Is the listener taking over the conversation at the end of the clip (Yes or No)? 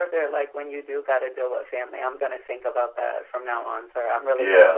Yes